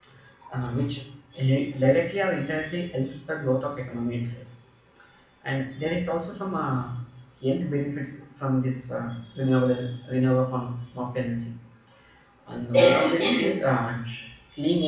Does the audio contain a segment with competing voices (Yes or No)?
No